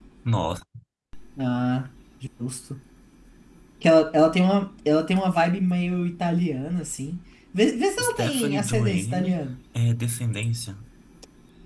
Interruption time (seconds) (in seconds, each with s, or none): 8.0 s